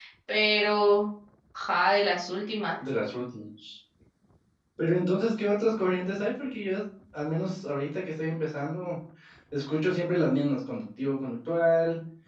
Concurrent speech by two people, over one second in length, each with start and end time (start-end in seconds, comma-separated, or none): none